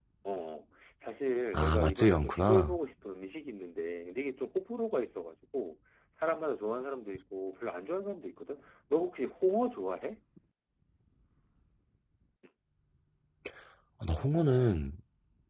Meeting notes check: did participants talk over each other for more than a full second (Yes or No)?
Yes